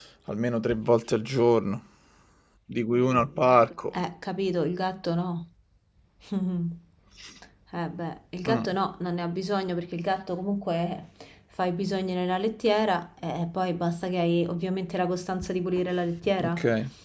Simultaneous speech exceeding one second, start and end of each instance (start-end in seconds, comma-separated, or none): none